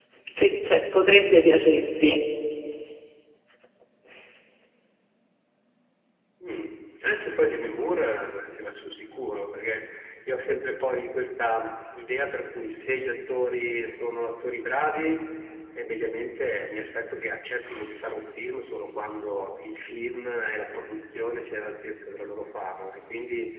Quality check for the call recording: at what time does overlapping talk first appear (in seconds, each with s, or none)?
none